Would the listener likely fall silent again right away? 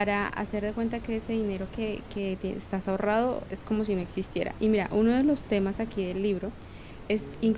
Yes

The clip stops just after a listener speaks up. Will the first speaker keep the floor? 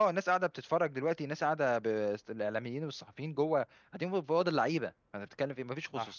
Yes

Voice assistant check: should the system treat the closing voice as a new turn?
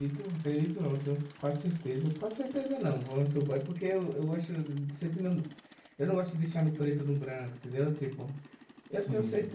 No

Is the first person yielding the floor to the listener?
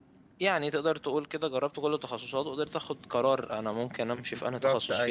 Yes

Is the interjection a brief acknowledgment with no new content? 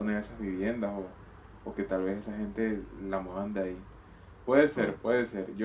Yes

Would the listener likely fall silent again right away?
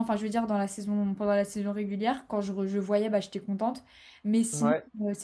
Yes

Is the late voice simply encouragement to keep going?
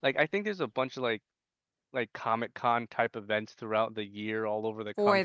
Yes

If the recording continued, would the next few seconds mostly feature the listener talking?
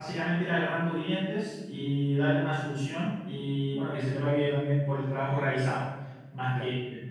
Yes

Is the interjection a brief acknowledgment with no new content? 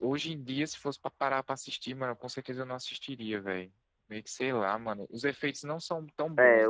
No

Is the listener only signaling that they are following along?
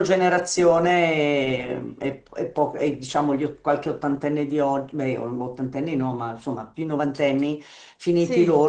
Yes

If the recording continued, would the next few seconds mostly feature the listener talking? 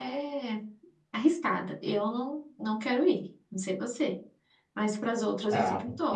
Yes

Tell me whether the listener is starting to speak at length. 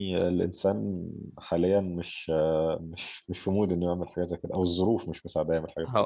Yes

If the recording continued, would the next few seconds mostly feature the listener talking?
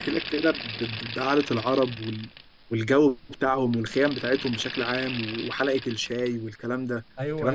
Yes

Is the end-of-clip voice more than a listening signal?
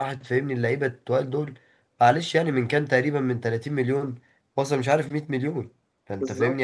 No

